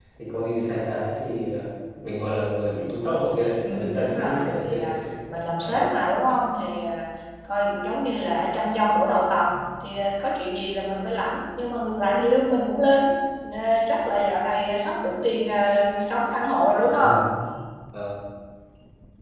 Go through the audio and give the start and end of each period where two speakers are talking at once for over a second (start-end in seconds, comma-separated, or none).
3.6-5.0